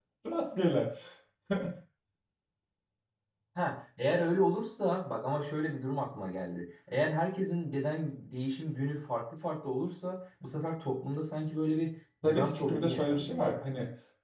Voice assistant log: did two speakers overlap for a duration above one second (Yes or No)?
Yes